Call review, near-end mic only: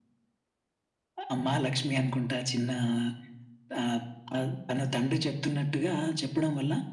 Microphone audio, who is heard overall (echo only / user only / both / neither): echo only